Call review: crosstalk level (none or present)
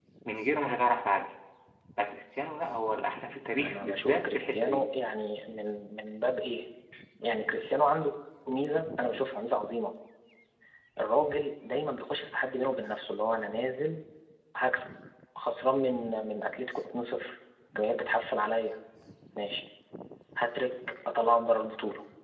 present